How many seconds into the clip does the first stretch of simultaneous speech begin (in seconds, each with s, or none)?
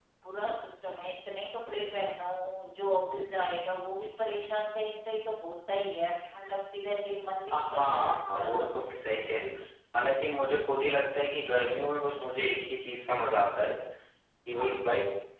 7.5 s